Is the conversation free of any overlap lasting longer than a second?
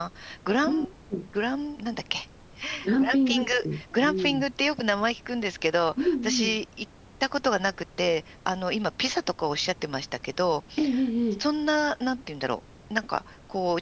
No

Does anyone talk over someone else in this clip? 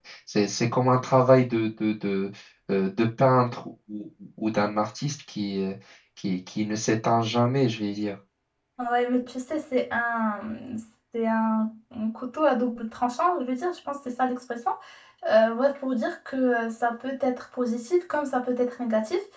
No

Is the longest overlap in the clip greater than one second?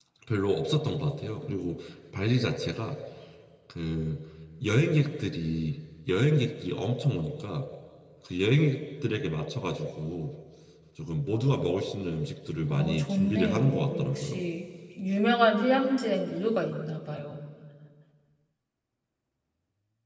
Yes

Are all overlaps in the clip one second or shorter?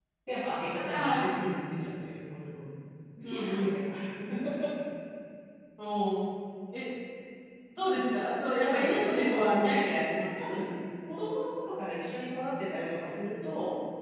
No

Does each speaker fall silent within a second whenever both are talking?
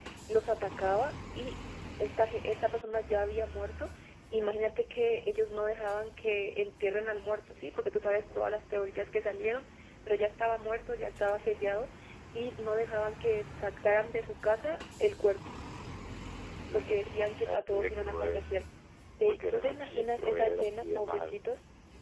No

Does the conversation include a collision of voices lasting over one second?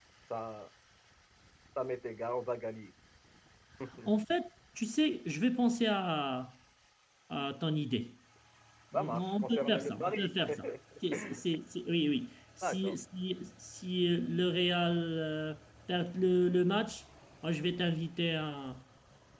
Yes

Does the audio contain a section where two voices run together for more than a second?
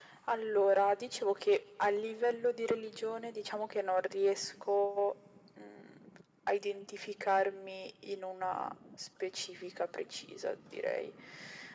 No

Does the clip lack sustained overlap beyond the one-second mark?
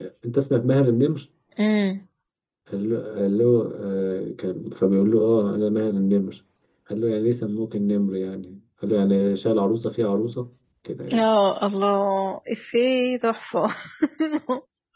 Yes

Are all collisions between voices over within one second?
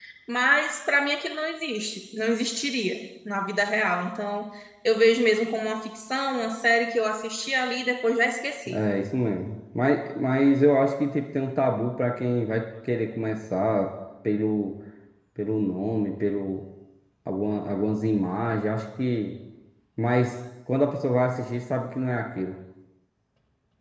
Yes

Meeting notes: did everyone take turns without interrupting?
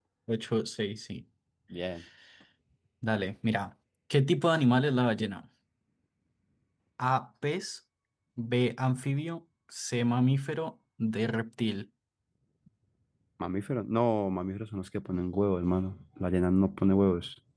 Yes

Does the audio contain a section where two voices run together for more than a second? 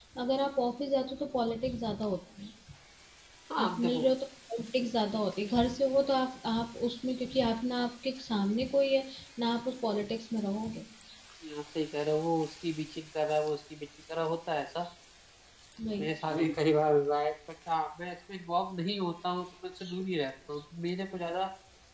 No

